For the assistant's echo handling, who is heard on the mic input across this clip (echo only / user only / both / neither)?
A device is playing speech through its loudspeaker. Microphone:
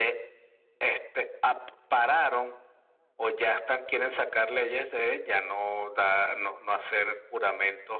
echo only